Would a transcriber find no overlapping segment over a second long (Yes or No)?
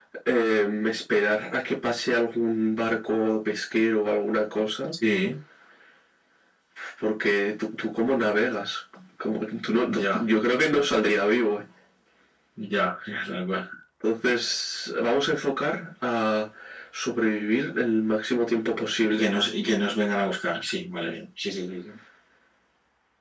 Yes